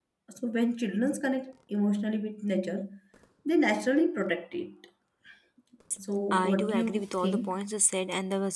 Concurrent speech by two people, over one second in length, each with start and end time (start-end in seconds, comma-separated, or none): 6.3-7.5